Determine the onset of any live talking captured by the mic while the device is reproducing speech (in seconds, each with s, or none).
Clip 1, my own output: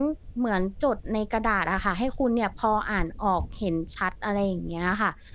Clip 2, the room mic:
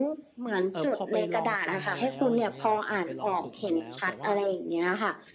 0.7 s